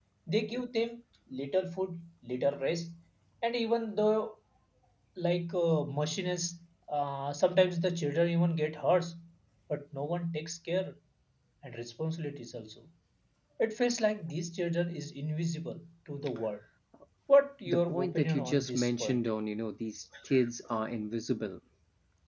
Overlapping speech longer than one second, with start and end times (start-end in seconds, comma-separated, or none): 17.6-19.2